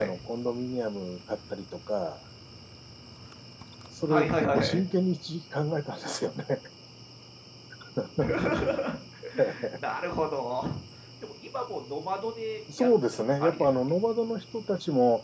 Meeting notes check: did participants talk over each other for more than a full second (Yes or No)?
Yes